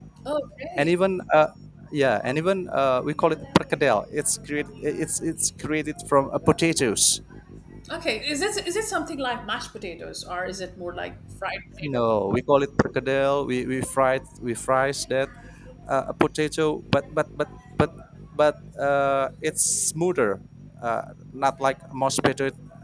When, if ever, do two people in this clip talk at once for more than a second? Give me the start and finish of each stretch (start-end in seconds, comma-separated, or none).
none